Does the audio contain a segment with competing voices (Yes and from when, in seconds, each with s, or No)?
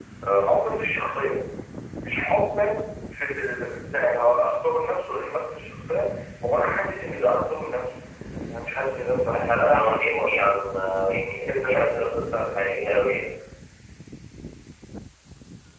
Yes, from 9.3 s